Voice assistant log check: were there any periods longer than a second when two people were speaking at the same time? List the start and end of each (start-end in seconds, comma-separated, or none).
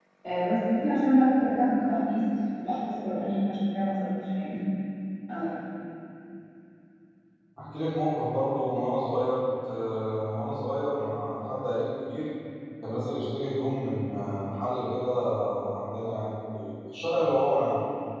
none